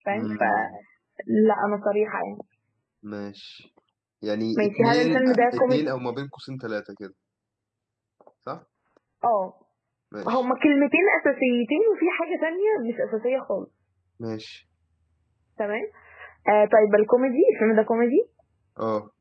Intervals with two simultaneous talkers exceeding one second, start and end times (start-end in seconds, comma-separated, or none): 4.5-5.8